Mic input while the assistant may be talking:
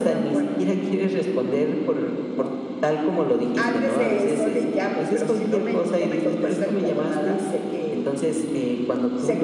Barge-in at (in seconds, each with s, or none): none